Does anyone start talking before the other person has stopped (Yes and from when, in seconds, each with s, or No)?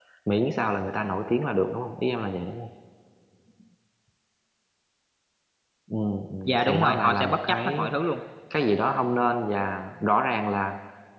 Yes, from 6.4 s